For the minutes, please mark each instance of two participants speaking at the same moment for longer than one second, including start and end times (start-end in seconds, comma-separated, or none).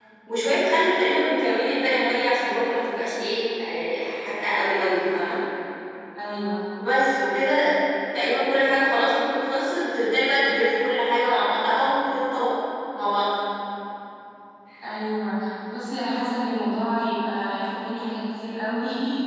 none